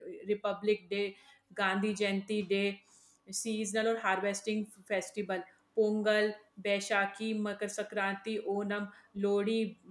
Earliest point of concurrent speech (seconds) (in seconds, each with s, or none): none